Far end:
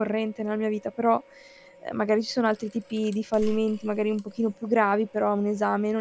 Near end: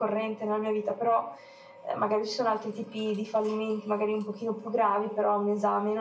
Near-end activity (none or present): none